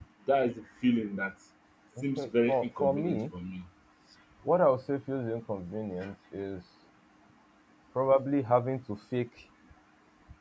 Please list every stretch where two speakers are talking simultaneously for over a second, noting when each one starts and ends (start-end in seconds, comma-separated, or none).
2.0-3.2